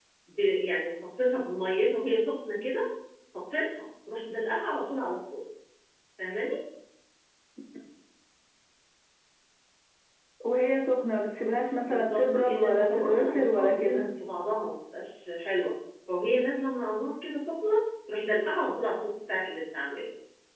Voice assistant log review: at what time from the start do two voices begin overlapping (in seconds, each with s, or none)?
11.8 s